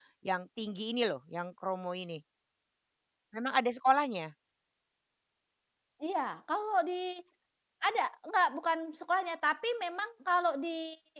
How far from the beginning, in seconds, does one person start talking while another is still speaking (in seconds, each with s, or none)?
none